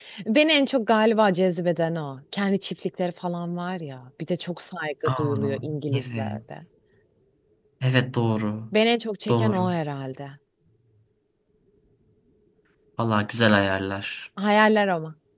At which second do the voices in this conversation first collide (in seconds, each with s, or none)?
5.2 s